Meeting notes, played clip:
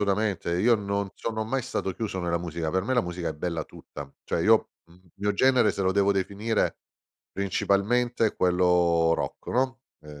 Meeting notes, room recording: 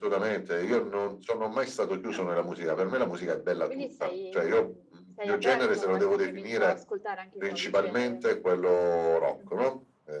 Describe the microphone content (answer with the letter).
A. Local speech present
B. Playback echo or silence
A